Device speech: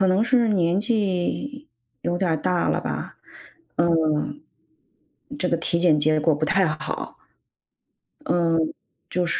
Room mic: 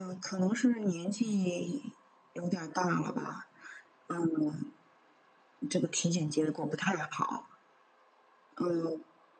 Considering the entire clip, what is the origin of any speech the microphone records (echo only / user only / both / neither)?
echo only